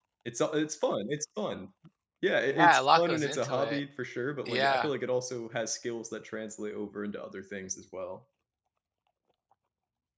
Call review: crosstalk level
present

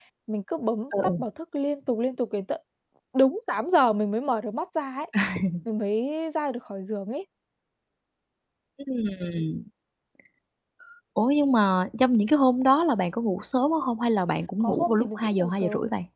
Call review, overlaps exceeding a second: present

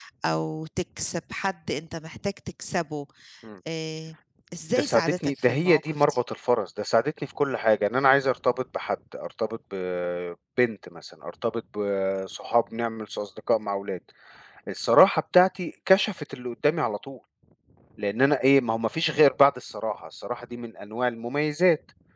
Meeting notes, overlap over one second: present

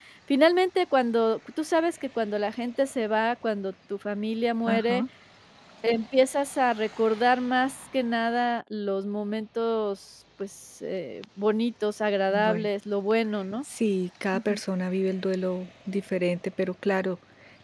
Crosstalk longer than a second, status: none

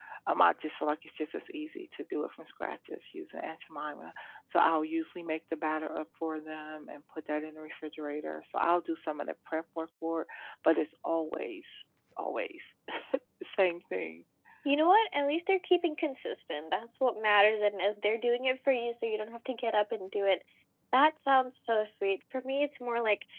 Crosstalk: none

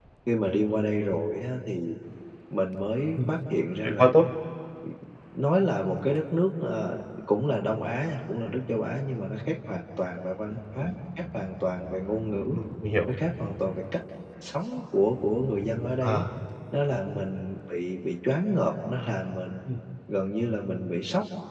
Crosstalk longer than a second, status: none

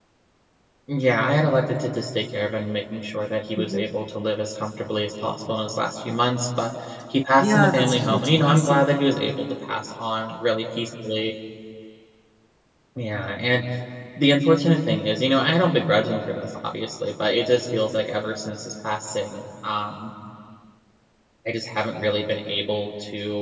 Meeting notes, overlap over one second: present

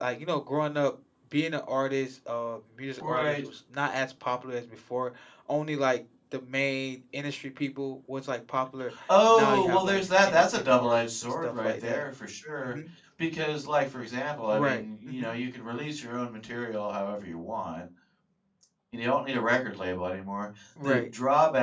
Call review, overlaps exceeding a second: present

